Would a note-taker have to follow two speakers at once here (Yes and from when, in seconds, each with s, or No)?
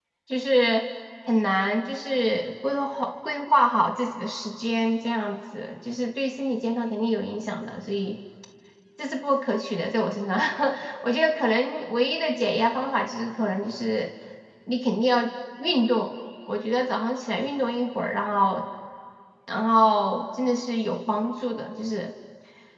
No